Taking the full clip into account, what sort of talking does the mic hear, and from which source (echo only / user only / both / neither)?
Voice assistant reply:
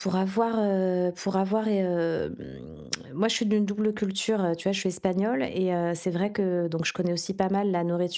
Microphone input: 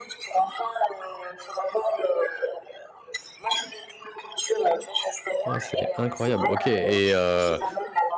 both